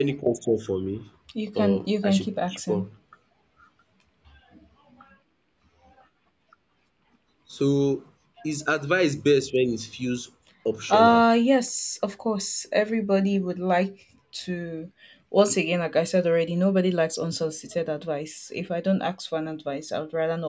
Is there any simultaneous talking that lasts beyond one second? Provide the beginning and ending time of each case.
1.6-2.9

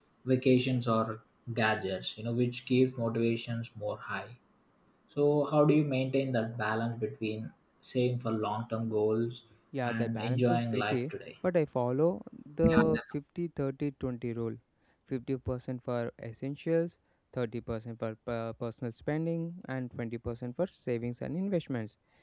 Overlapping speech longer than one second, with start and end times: 9.8-11.1

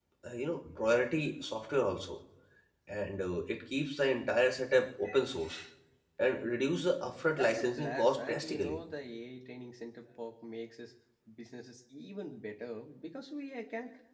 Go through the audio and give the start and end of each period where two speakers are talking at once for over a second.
7.3-8.8

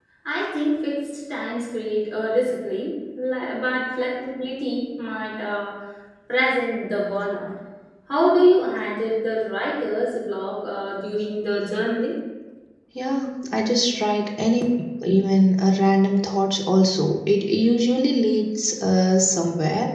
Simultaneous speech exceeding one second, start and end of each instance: none

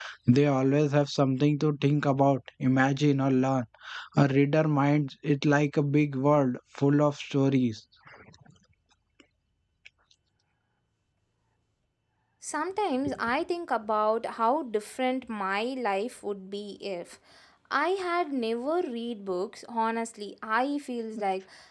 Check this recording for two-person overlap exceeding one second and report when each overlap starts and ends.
none

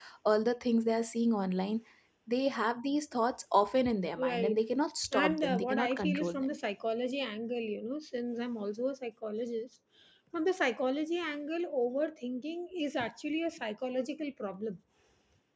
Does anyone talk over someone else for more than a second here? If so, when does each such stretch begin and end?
5.1-6.6

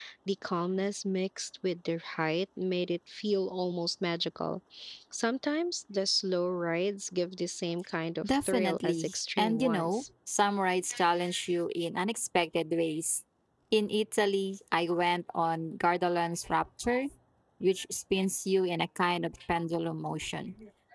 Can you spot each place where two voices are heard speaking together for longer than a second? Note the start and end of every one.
8.2-10.0

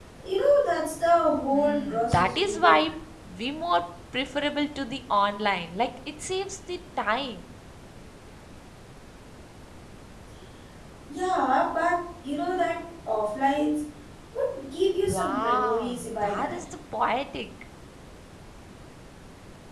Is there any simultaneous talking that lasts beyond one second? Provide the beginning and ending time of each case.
1.5-2.8, 15.0-16.6

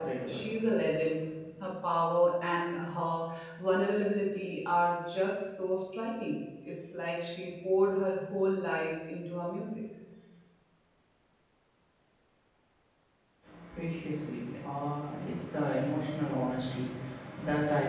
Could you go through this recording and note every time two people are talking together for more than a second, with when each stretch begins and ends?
none

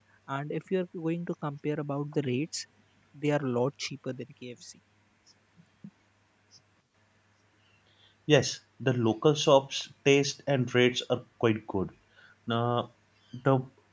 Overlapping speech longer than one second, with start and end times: none

